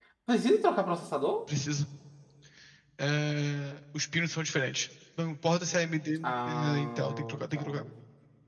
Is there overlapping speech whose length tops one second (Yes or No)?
Yes